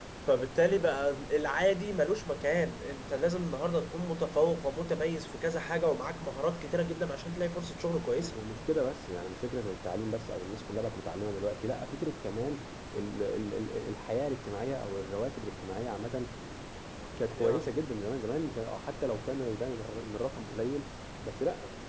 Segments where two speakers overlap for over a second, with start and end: none

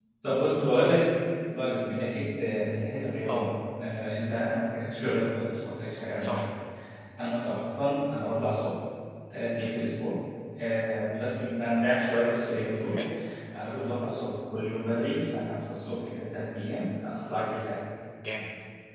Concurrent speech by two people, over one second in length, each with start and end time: none

